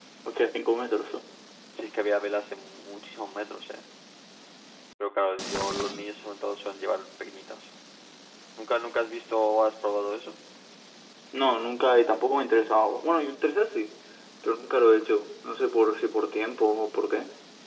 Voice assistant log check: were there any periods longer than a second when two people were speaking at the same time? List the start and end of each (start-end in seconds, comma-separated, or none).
none